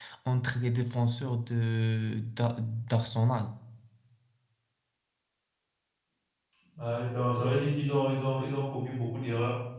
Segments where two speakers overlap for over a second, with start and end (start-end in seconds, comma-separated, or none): none